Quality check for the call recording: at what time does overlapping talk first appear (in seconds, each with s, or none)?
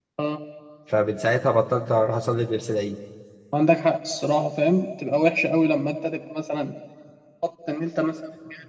none